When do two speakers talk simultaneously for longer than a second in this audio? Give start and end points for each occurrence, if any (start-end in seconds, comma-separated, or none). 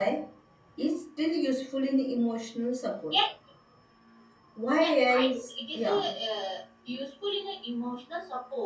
4.8-6.1